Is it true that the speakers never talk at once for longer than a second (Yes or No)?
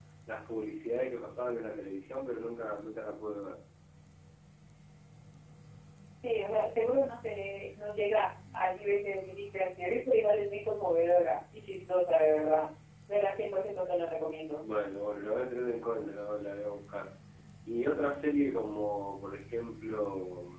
Yes